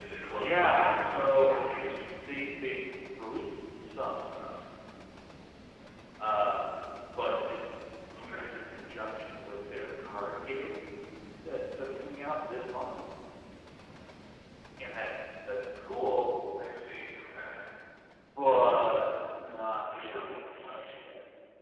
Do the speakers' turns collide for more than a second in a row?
Yes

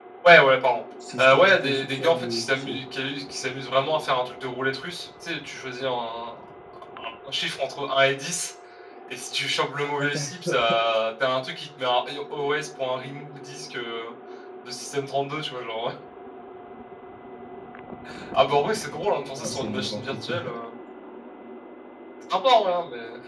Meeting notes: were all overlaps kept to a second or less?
No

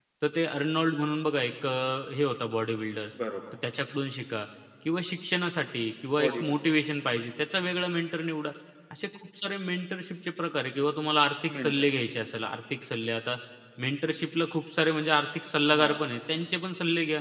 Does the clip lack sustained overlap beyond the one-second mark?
Yes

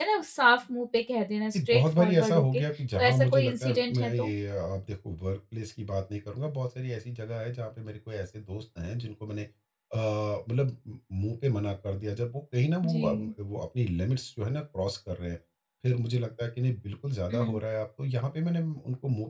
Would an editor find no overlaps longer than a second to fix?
No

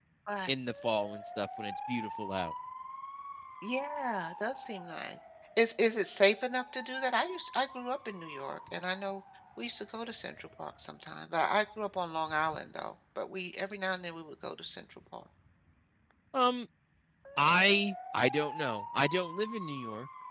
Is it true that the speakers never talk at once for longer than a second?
Yes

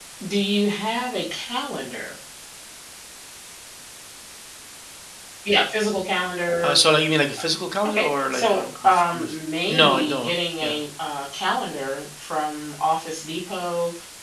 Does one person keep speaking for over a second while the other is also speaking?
Yes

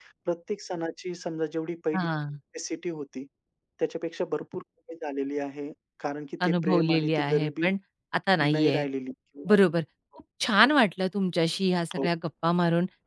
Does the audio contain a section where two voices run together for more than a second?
Yes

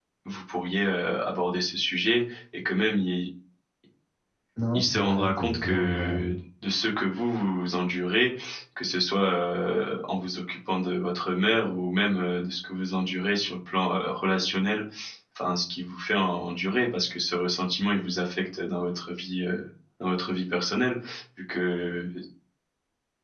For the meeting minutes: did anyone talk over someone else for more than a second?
Yes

